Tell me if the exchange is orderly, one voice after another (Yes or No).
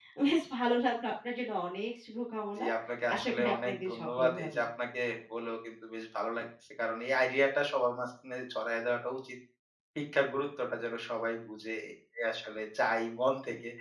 No